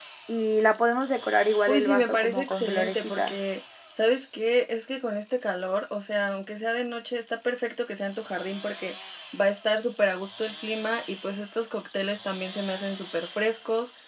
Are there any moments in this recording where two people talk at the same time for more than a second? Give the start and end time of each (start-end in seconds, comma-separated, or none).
1.7-3.4